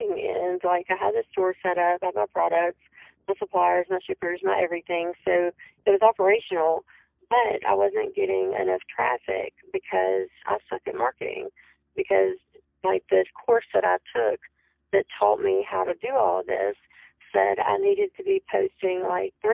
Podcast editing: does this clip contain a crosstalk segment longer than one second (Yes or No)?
No